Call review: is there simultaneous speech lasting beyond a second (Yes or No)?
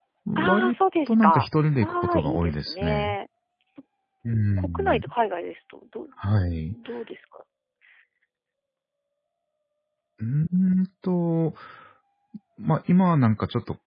Yes